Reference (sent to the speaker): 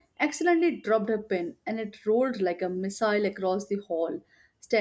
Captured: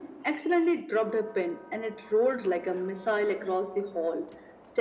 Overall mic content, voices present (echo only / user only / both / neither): echo only